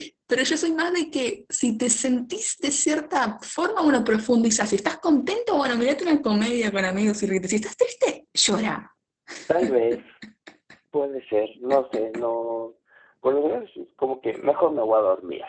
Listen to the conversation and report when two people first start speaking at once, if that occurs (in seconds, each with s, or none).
none